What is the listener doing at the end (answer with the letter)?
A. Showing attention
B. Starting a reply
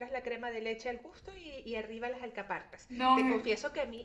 A